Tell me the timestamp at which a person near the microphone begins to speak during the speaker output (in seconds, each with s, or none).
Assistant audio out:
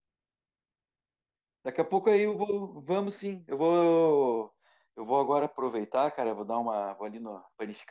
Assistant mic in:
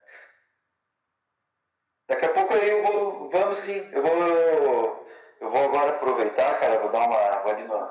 none